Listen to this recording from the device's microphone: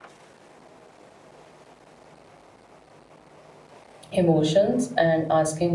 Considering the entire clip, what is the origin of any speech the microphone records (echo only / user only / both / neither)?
user only